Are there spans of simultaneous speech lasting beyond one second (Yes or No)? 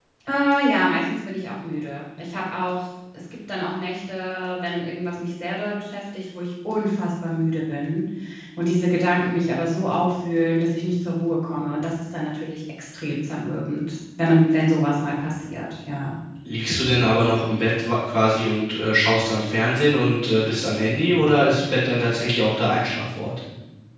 No